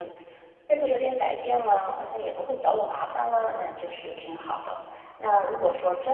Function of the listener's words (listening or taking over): listening